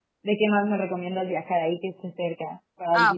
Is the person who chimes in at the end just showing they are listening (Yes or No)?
No